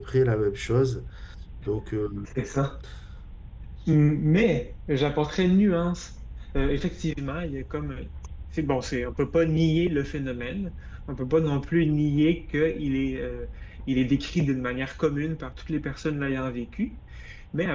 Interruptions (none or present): none